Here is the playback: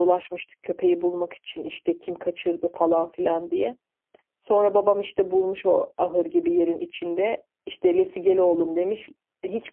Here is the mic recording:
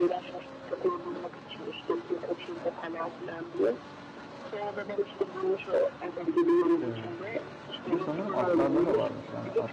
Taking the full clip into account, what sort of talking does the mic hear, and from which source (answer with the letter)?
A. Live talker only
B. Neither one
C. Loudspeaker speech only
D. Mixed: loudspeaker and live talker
D